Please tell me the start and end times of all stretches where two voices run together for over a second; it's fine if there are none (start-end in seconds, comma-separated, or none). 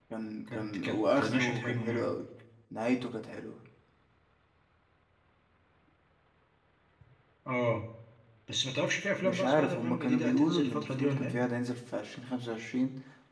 0.5-2.1, 9.2-11.4